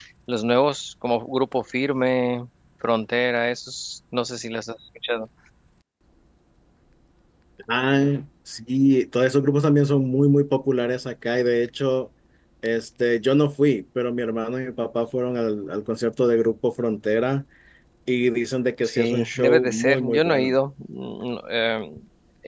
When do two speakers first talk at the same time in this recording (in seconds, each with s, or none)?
18.9 s